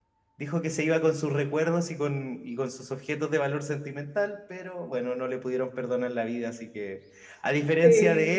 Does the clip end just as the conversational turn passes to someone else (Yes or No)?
No